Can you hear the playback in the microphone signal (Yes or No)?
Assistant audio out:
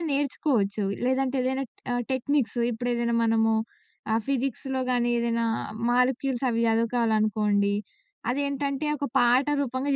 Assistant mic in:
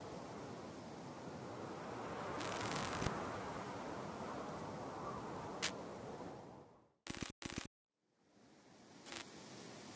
No